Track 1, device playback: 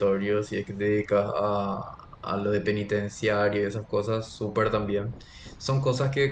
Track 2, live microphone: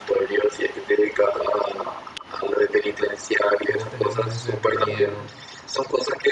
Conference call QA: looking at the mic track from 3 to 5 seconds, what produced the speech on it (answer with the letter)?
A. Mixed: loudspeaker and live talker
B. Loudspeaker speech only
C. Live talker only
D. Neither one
A